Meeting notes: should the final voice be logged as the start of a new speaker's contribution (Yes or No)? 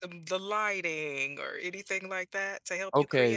Yes